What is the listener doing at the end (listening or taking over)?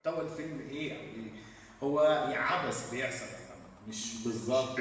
taking over